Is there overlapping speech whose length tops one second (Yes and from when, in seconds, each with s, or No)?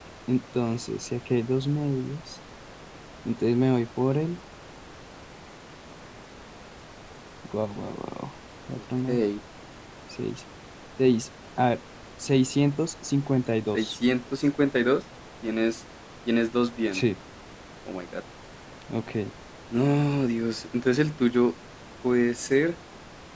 No